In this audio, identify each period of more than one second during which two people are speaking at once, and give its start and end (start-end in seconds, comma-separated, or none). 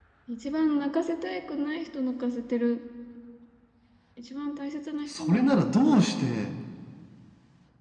5.1-6.3